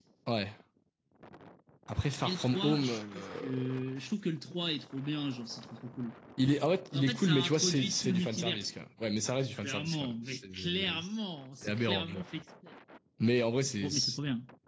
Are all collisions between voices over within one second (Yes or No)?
No